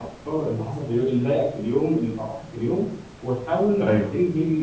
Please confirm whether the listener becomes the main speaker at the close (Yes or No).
No